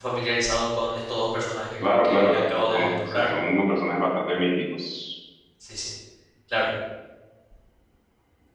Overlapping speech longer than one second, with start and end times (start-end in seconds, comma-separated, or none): 1.8-3.2